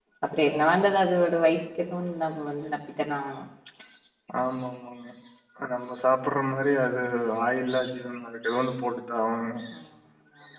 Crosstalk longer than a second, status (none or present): none